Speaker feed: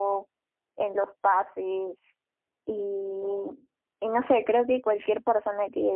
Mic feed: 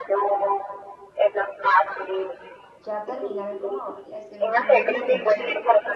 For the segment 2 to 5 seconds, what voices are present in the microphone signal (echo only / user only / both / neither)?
both